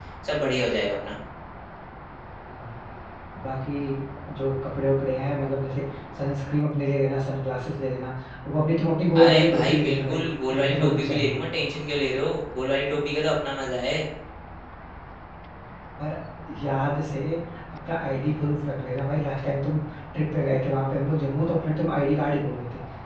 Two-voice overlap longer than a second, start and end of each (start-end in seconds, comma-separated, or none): 9.2-11.4